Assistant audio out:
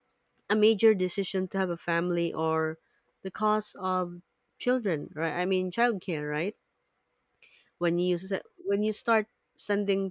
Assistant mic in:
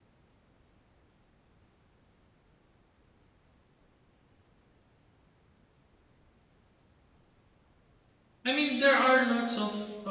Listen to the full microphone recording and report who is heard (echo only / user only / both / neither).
user only